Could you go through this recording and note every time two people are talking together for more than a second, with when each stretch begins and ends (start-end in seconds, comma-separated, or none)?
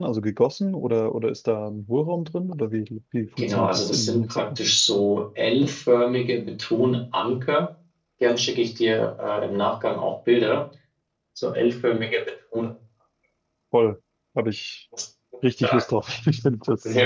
3.4-4.6